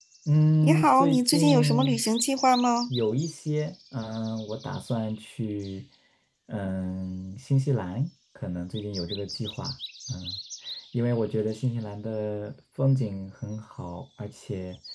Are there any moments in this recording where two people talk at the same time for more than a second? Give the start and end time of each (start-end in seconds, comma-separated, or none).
0.6-2.0